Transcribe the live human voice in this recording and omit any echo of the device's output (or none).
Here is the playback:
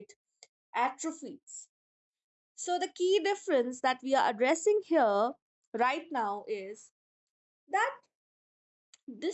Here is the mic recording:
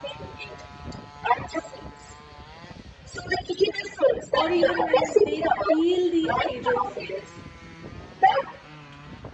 or even when they feel the agency.